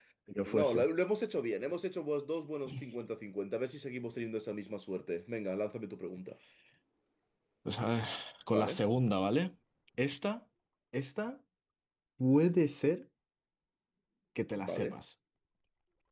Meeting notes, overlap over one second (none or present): none